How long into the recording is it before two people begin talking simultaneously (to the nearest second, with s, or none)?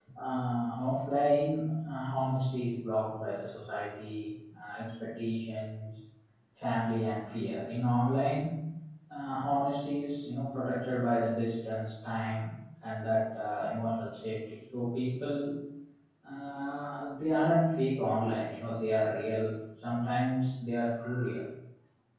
none